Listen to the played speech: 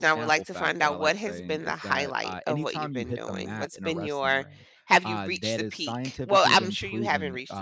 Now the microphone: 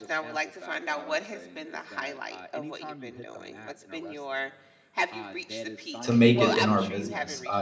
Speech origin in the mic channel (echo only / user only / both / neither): both